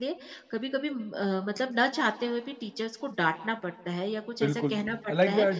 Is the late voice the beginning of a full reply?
Yes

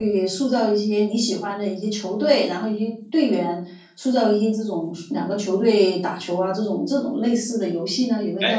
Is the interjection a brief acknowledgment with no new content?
No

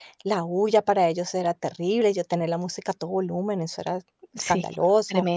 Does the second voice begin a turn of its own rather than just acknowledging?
Yes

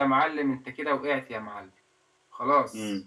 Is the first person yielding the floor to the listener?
Yes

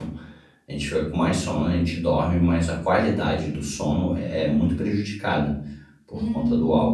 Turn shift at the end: Yes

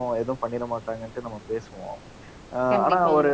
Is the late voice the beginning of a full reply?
No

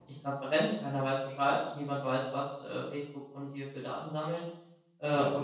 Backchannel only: Yes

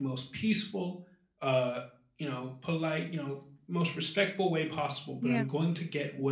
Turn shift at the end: No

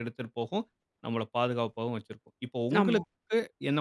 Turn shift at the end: No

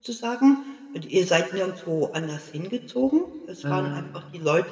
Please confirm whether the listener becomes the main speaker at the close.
No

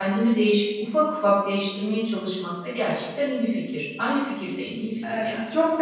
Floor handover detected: Yes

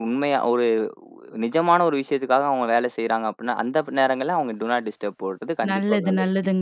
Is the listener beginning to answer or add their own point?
Yes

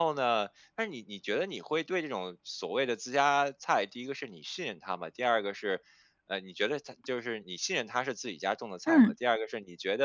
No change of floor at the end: Yes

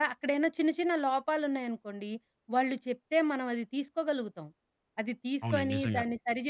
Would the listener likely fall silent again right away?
Yes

